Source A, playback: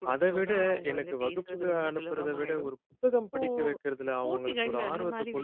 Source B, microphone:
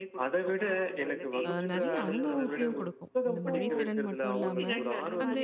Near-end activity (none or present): present